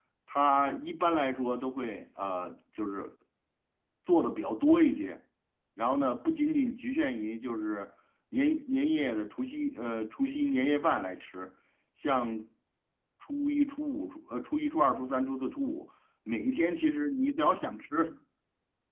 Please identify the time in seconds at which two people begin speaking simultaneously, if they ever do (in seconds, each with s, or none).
none